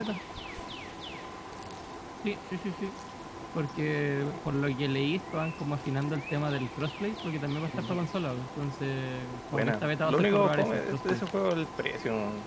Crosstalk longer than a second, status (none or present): present